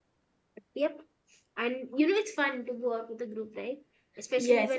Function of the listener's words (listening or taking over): taking over